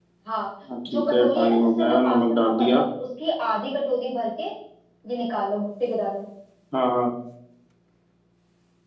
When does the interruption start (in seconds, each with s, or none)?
0.9 s